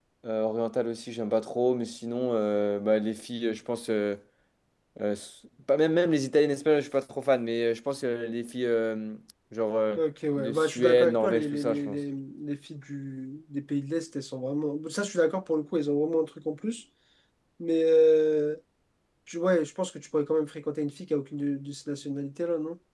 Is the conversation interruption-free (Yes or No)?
No